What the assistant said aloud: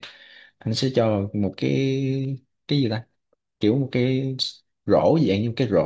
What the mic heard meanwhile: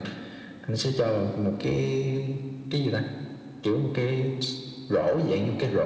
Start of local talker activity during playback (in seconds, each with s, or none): none